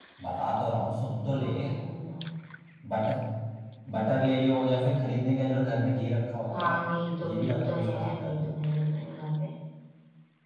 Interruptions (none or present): present